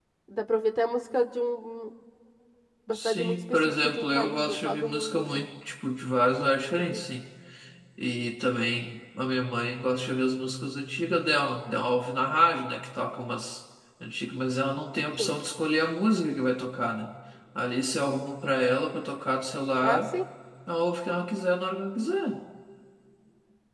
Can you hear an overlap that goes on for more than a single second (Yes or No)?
Yes